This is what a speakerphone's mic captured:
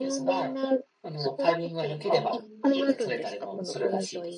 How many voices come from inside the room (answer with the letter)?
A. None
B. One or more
B